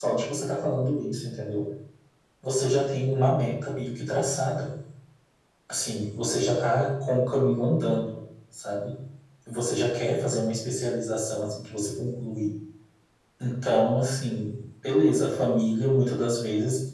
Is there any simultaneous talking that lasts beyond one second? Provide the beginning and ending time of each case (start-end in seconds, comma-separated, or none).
none